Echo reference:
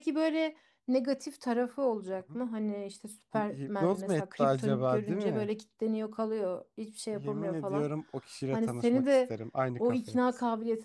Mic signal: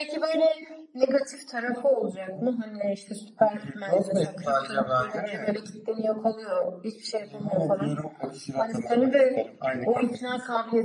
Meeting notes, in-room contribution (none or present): none